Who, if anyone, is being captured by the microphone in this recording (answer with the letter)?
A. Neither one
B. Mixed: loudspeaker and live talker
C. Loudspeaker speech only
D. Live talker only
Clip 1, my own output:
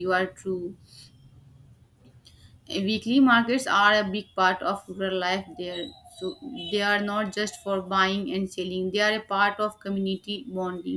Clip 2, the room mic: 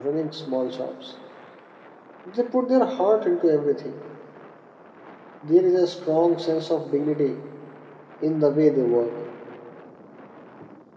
D